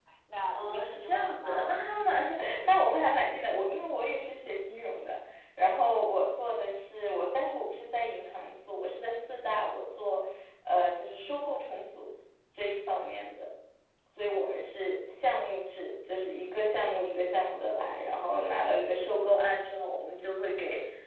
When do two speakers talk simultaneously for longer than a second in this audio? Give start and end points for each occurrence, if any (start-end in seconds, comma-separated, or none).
0.5-1.9